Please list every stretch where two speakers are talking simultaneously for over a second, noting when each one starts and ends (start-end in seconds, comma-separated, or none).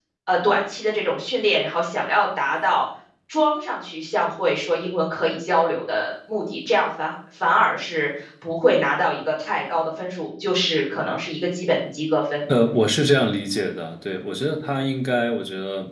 none